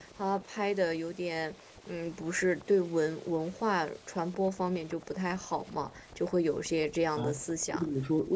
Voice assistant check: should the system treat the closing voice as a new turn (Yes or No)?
Yes